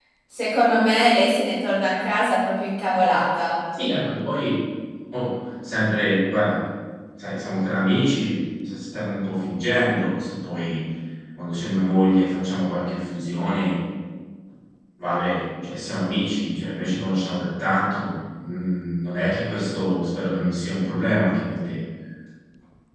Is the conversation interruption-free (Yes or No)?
Yes